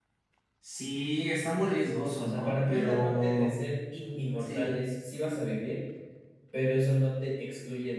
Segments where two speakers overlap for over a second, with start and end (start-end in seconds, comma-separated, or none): 2.2-3.6